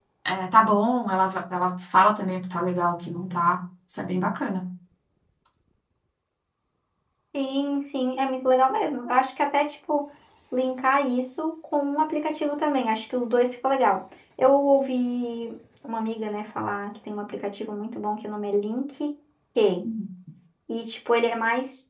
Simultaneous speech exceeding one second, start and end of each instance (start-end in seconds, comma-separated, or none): none